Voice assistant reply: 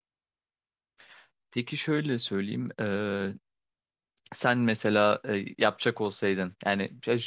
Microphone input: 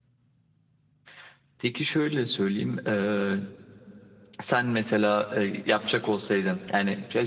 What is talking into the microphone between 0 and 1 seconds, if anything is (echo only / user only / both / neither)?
neither